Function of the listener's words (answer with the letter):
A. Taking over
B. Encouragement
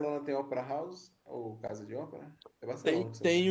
A